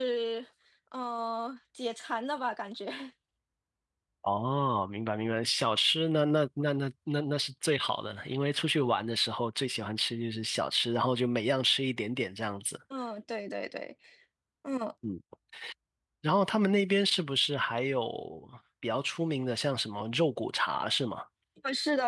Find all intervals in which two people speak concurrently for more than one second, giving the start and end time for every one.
none

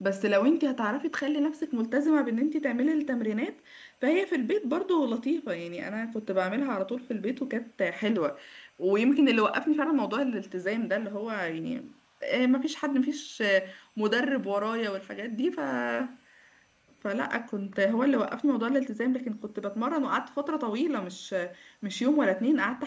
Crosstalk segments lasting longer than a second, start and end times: none

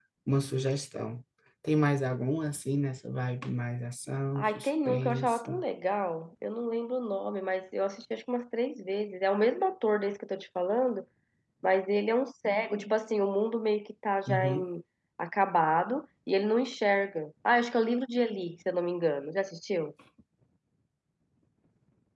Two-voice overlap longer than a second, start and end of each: 4.4-5.6

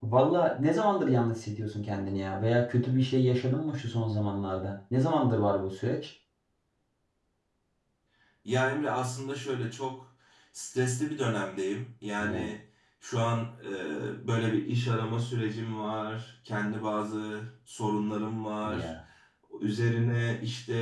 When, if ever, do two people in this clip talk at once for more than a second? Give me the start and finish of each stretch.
none

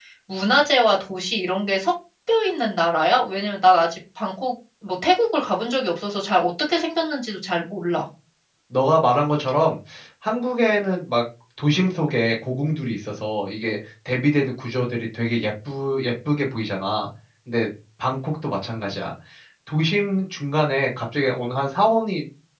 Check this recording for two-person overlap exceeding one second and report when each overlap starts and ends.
none

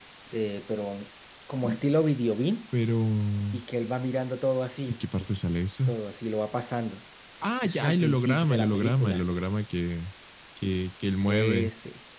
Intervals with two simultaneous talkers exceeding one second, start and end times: 7.6-9.2

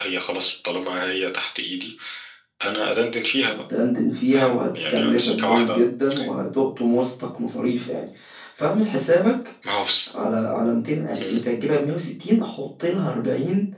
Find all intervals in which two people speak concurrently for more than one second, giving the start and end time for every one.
4.3-5.8

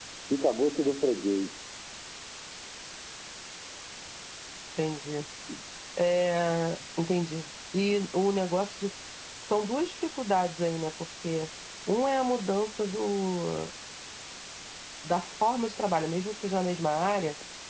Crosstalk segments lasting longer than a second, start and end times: none

